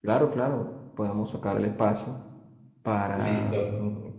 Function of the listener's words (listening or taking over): listening